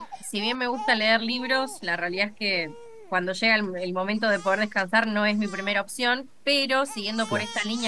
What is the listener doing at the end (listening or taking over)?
listening